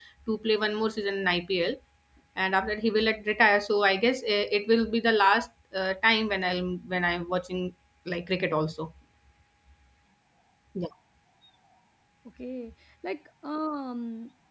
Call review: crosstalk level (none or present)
none